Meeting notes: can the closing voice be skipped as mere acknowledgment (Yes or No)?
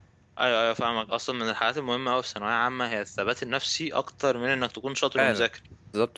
No